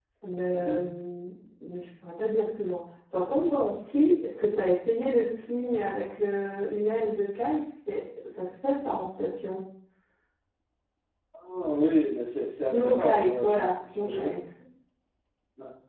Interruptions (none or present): present